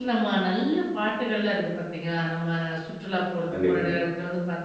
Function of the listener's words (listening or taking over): listening